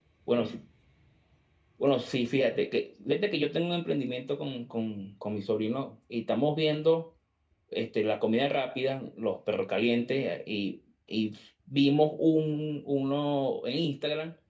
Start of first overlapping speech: none

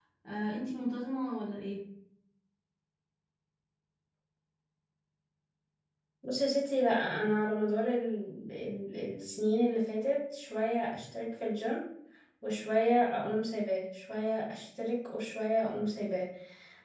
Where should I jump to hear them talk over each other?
none

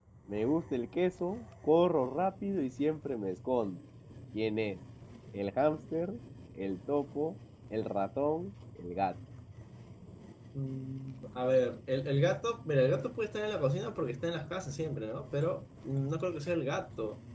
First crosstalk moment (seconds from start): none

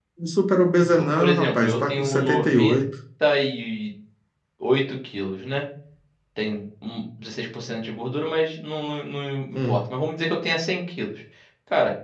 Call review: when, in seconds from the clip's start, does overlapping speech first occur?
1 s

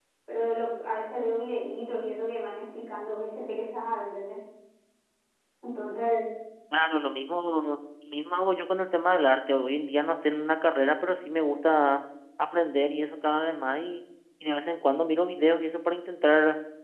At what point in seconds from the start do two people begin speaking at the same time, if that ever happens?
none

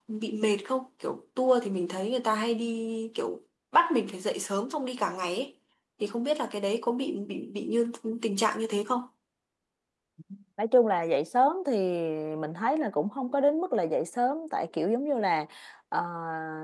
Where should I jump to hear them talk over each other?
none

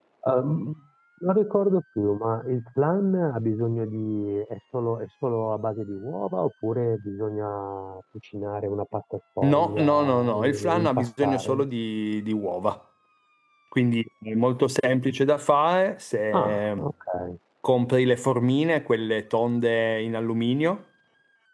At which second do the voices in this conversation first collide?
9 s

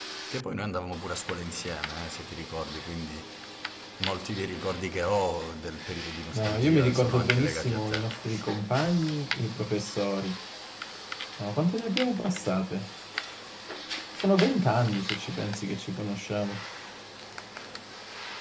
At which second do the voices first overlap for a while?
6 s

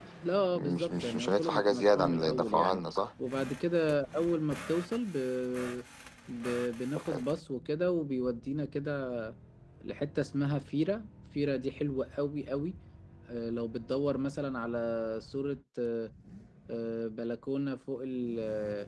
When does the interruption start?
1 s

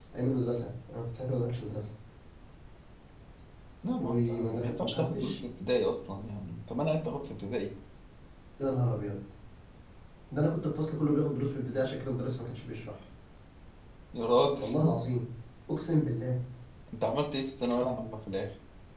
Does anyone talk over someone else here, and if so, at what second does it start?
4 s

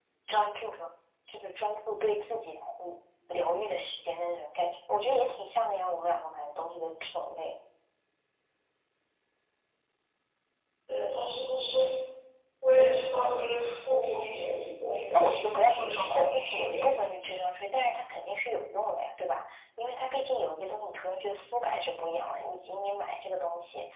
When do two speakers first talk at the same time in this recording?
15 s

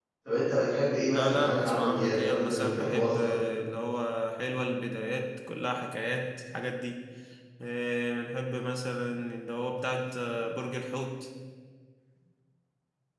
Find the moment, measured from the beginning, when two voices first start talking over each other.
1 s

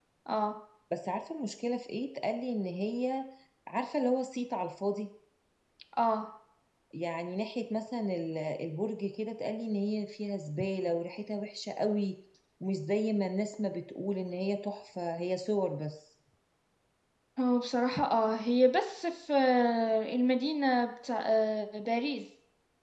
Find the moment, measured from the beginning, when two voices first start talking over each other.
none

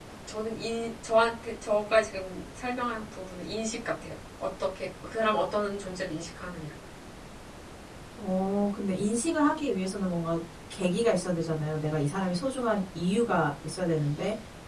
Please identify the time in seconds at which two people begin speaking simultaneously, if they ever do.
none

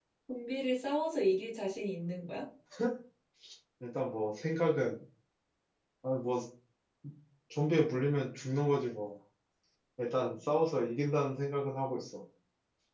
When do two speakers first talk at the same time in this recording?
none

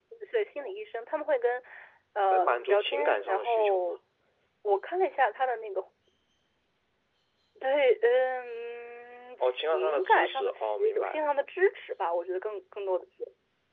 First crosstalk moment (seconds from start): 2 s

